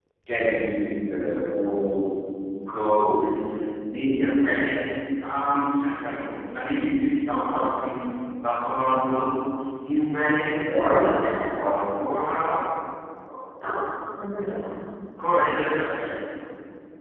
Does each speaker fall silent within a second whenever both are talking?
Yes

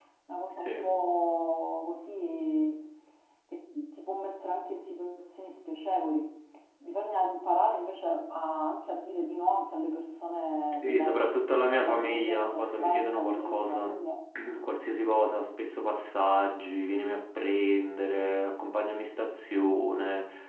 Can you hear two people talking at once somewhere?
Yes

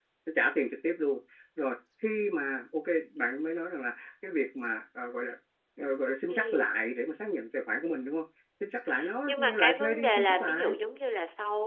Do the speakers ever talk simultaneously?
Yes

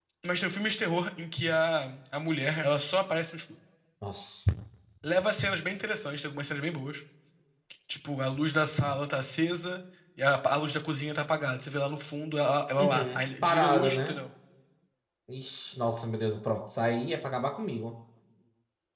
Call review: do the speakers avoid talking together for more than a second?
No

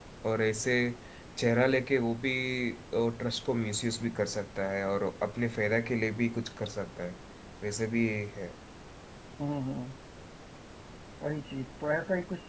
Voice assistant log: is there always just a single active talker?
Yes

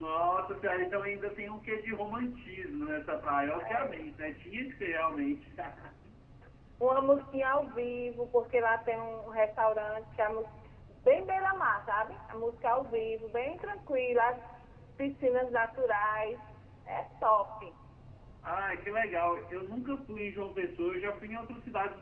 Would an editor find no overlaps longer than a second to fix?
Yes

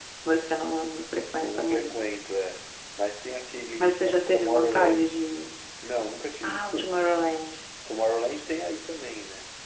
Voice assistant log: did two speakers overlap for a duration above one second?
Yes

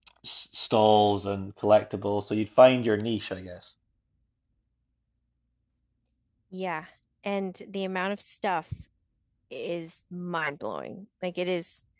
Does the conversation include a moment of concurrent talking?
No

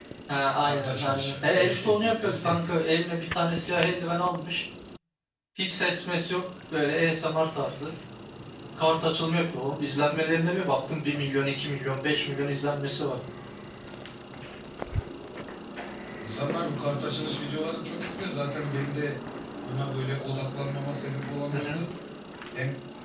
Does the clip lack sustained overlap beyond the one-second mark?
No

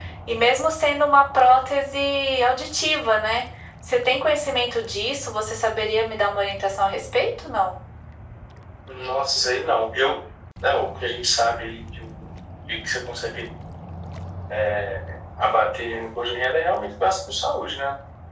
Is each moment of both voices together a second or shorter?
Yes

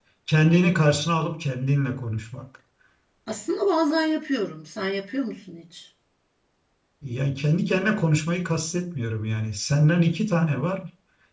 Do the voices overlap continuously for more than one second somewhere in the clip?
No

